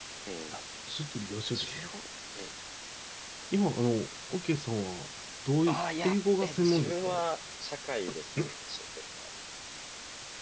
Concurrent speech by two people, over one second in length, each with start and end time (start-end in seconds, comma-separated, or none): 5.7-7.2